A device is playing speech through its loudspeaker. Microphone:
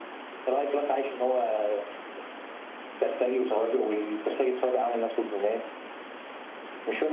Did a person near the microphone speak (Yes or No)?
No